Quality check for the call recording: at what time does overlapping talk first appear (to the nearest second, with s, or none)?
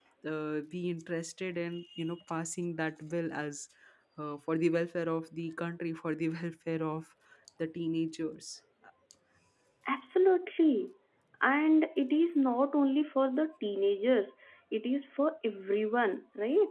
none